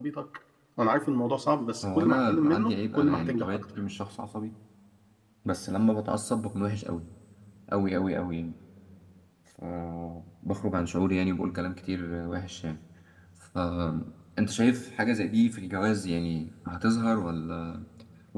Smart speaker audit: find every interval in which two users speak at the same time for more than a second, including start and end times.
1.9-3.6

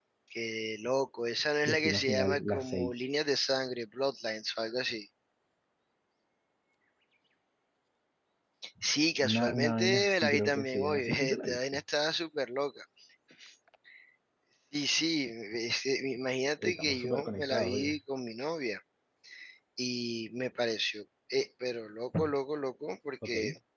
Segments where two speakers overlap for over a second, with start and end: 1.6-2.9, 9.3-11.8, 16.6-18.0

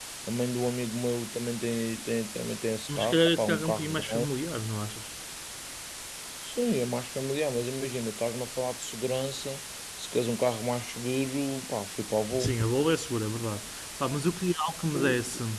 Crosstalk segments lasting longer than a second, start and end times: 2.9-4.3

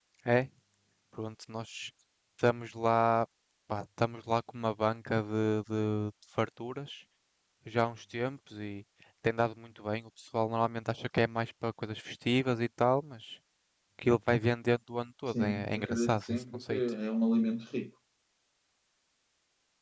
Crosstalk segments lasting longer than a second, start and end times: 15.3-16.8

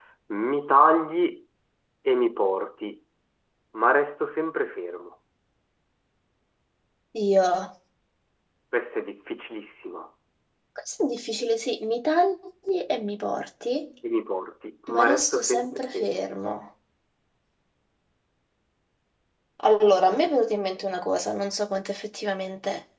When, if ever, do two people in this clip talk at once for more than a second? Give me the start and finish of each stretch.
14.9-16.2

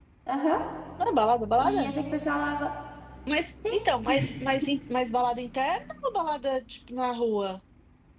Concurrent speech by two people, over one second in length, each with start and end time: none

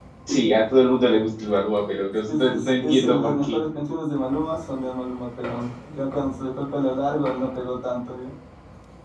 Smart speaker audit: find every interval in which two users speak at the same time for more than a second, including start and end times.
2.3-3.6

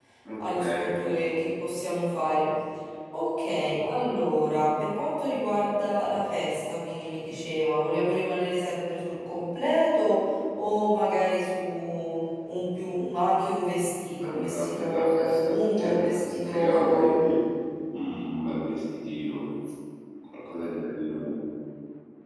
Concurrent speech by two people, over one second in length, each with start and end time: 14.2-17.2

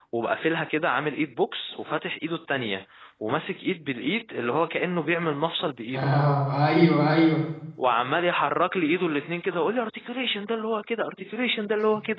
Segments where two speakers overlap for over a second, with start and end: none

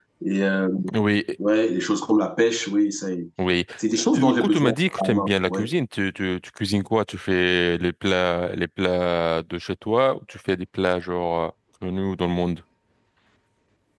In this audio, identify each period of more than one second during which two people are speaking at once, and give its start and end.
4.1-5.7

